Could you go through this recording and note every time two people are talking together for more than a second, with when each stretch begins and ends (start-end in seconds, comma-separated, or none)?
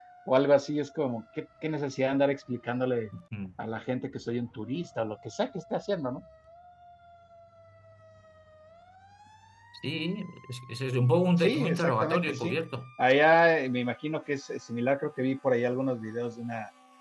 11.4-12.6